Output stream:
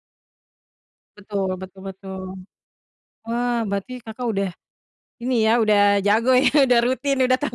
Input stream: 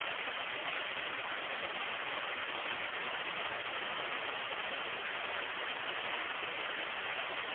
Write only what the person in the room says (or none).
none